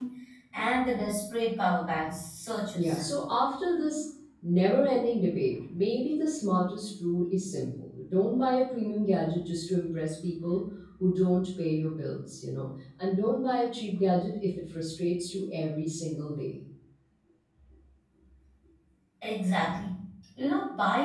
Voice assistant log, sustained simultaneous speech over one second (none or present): none